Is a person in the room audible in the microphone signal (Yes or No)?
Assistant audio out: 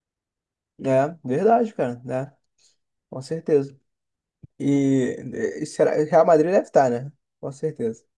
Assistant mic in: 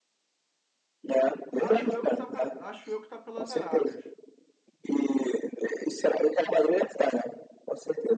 Yes